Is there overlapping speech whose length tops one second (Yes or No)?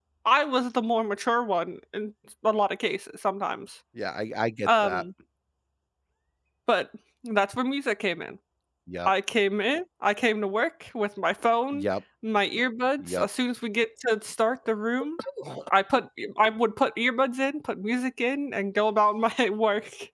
No